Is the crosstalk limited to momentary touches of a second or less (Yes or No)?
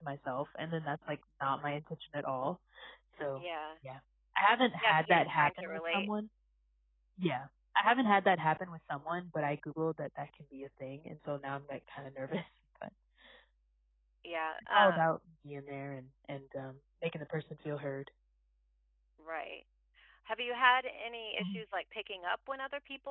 No